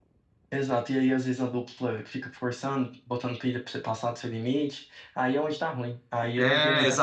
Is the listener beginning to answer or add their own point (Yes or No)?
Yes